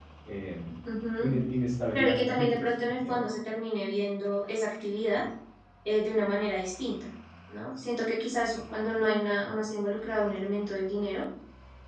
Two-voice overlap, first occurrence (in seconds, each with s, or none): 1.9 s